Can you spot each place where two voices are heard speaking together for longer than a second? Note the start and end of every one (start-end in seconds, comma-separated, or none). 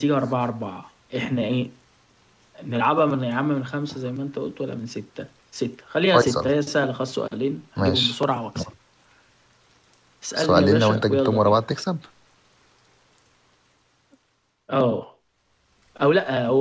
10.3-11.6